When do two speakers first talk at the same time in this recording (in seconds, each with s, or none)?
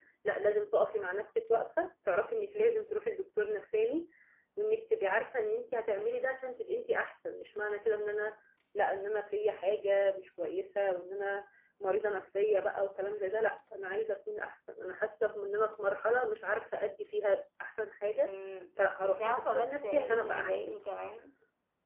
19.1 s